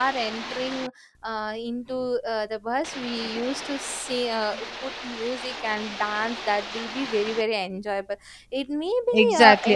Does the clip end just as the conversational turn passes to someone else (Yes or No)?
Yes